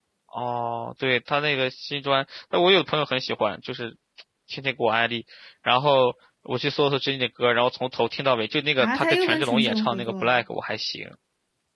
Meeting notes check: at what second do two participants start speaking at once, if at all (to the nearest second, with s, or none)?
9 s